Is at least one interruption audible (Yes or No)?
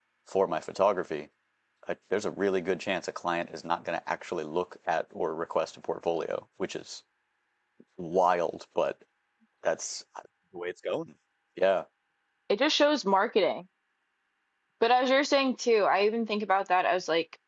No